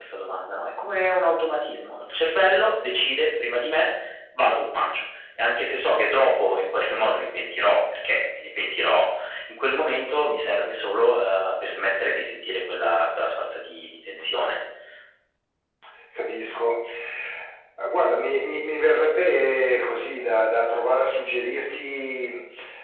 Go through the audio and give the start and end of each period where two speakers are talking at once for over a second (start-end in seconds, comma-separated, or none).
none